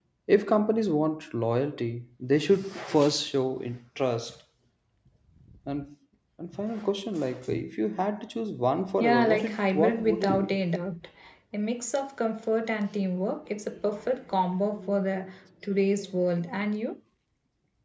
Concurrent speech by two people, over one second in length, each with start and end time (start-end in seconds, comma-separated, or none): 9.0-10.6